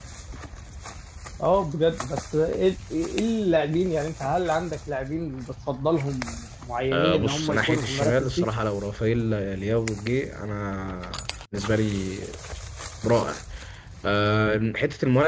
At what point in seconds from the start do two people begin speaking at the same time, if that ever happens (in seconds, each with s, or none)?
6.9 s